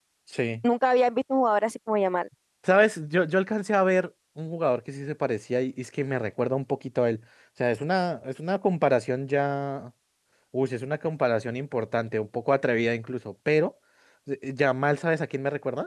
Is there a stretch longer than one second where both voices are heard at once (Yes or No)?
No